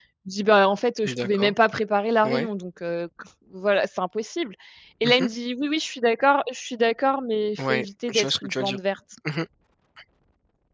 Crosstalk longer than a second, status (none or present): present